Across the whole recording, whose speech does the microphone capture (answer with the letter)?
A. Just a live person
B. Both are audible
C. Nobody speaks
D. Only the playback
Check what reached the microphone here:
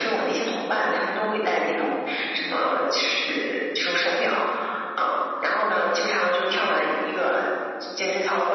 D